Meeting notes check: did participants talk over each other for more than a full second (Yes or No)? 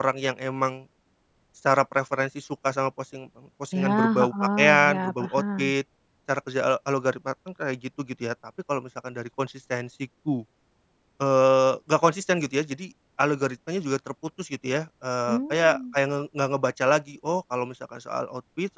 Yes